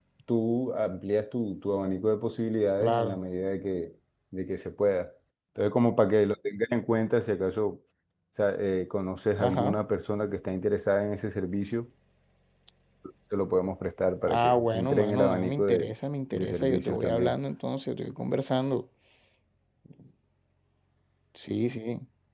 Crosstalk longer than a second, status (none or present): present